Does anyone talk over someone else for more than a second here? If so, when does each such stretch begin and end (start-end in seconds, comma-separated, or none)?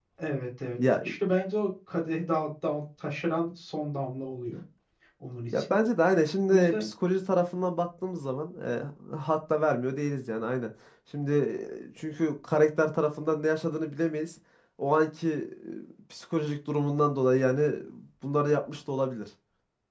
none